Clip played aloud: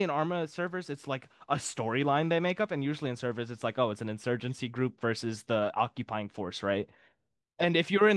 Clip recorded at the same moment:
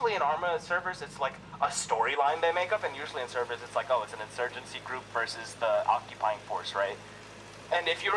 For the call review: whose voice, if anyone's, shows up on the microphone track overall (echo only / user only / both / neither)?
echo only